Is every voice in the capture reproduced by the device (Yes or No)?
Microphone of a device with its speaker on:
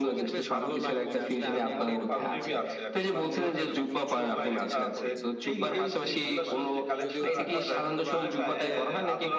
No